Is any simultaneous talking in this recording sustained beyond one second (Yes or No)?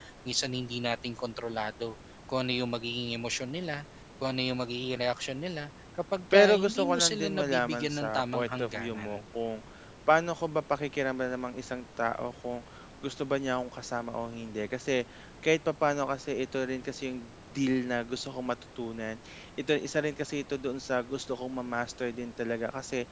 Yes